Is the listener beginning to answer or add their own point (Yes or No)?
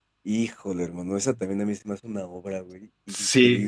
Yes